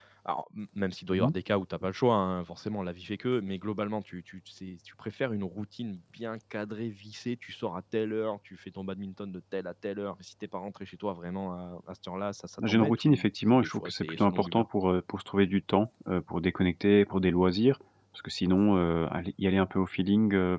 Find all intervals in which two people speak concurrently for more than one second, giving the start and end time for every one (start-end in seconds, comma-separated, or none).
12.7-14.7